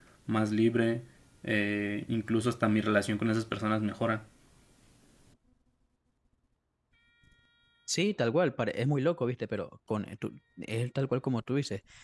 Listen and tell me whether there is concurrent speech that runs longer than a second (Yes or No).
No